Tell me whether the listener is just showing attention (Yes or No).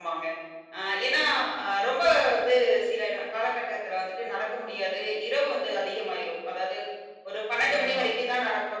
Yes